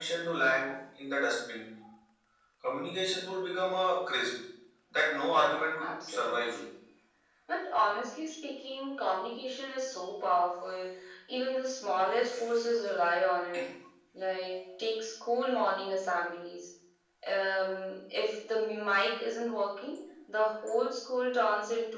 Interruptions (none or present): present